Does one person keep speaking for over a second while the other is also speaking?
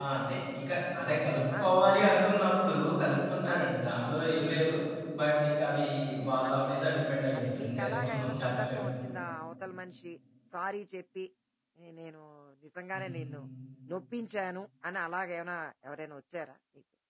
Yes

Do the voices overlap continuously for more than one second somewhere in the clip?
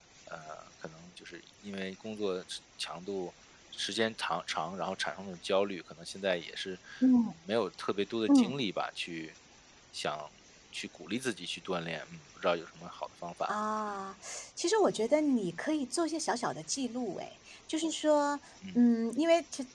No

